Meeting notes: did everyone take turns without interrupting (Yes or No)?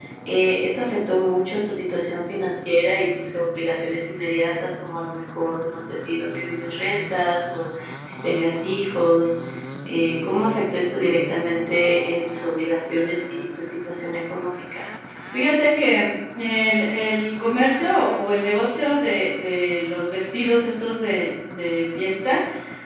Yes